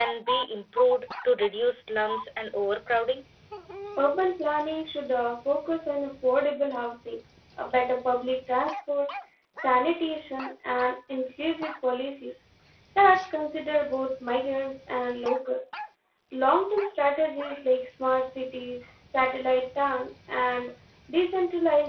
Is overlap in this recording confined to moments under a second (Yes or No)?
Yes